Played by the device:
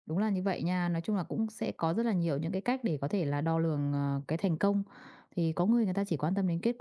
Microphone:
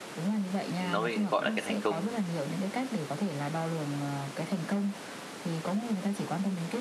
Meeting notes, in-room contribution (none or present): present